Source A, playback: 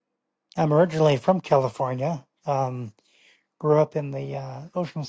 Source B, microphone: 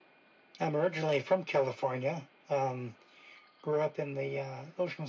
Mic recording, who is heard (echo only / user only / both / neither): echo only